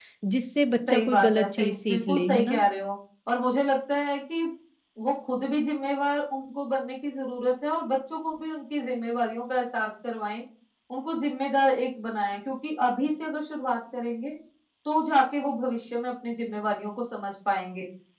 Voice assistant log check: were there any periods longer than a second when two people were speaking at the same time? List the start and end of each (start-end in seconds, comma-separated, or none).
0.9-2.6